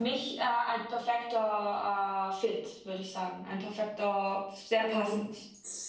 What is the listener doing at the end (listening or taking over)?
taking over